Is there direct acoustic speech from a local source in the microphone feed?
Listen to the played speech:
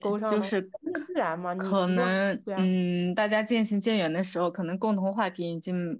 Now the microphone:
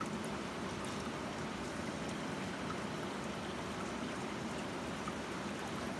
No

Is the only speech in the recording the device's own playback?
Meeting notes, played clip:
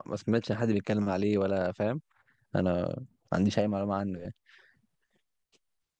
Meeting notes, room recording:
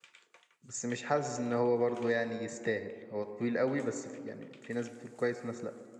No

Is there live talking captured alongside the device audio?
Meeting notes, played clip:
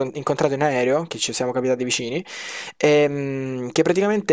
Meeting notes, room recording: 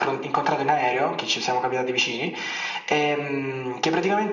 No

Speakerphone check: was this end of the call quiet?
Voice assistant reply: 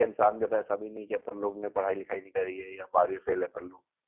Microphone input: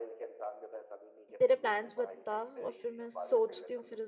No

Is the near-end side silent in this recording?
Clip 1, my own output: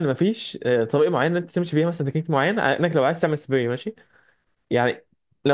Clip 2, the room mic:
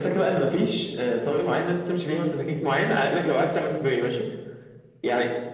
Yes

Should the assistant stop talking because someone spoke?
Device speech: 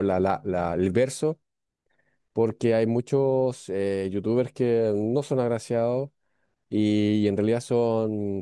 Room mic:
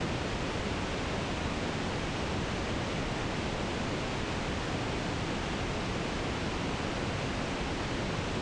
No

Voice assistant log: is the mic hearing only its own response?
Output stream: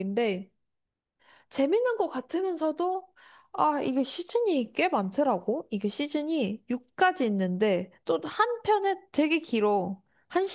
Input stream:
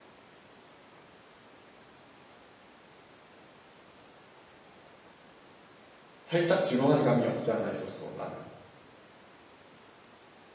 No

